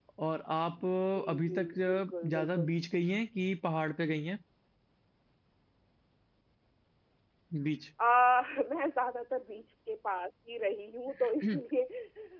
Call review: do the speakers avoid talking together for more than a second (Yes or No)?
No